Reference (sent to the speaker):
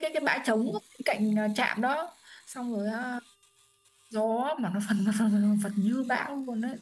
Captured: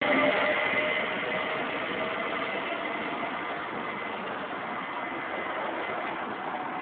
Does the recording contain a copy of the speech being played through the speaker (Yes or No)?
No